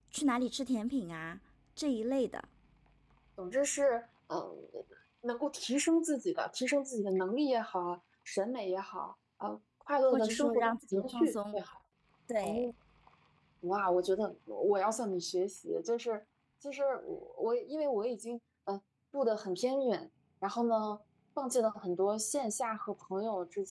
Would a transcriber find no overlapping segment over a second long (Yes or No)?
No